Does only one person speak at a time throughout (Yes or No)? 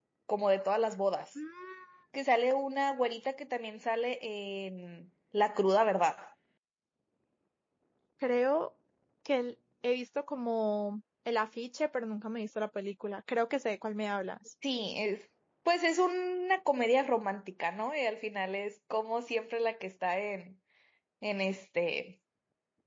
Yes